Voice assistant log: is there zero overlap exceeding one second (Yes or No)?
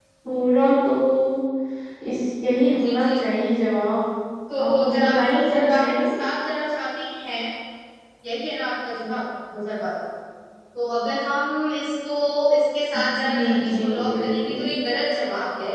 No